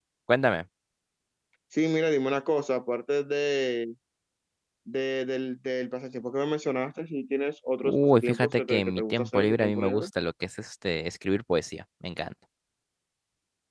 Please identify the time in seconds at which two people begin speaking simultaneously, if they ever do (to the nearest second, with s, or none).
8 s